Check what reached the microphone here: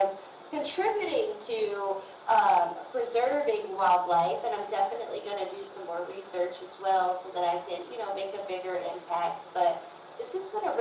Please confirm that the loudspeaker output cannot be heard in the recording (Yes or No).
No